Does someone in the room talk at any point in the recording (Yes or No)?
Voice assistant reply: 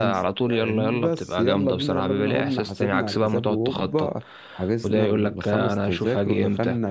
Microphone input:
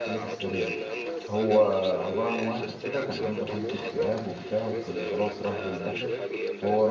Yes